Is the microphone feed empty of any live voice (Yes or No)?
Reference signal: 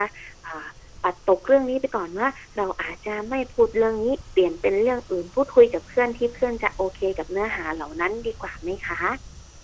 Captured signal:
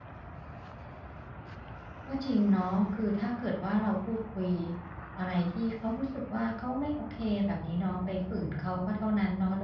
No